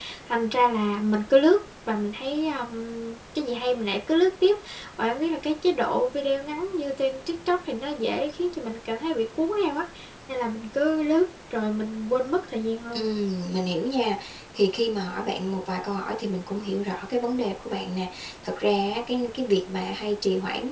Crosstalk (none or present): none